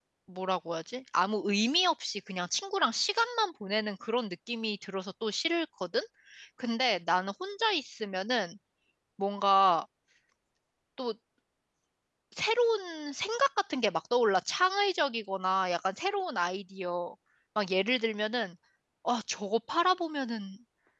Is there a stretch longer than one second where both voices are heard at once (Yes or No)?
No